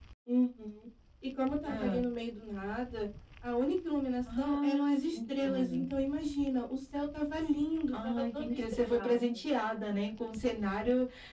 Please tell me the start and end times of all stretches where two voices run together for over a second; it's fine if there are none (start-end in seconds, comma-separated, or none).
4.4-5.8, 7.9-9.2